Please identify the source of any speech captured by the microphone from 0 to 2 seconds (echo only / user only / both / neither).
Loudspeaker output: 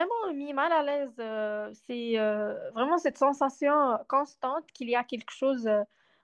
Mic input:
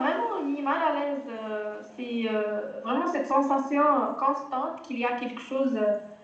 echo only